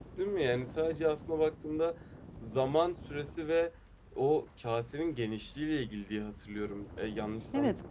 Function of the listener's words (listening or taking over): taking over